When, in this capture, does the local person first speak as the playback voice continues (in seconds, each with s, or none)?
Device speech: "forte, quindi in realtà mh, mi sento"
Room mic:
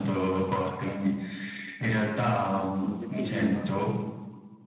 2.7 s